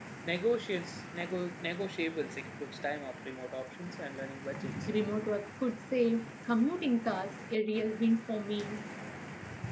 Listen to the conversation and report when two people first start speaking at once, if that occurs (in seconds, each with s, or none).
none